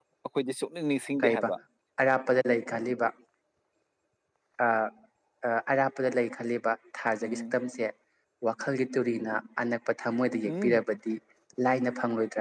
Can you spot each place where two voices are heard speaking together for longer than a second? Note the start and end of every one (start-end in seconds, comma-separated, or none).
none